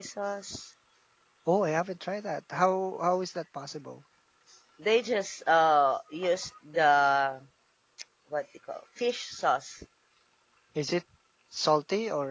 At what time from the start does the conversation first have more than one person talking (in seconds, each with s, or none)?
none